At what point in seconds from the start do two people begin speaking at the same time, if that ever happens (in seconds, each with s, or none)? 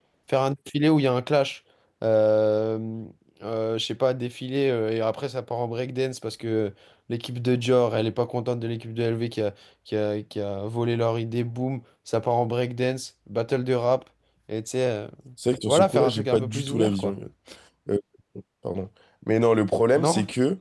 15.7 s